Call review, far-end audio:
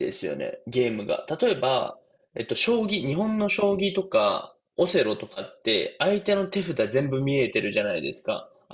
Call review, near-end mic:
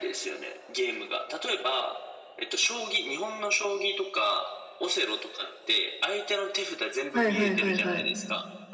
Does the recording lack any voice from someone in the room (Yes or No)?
No